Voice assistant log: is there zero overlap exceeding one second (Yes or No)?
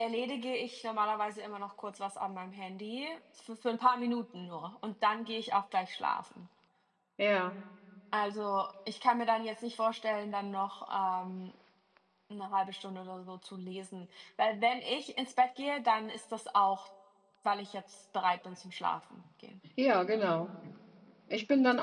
Yes